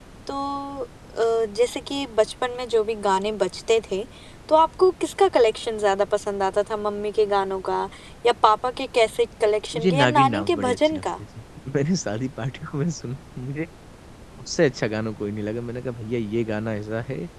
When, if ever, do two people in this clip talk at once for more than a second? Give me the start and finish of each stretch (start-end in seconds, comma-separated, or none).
9.7-11.0